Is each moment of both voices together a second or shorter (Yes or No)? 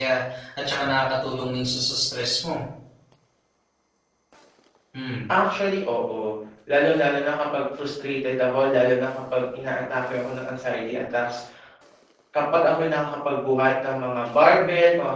Yes